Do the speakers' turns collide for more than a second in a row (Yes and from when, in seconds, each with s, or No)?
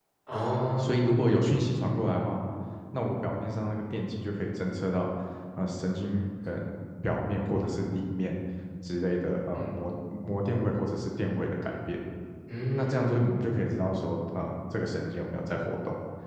No